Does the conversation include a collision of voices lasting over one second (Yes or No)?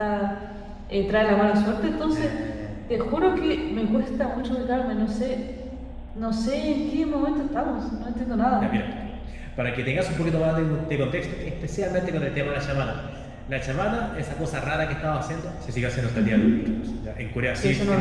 No